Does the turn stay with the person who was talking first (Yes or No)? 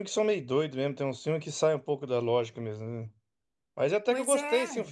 Yes